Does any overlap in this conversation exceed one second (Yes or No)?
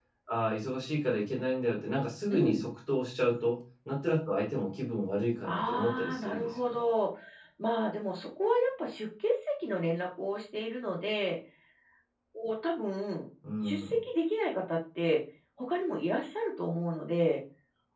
Yes